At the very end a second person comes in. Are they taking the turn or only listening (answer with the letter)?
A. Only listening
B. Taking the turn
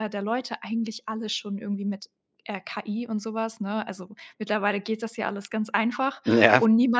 A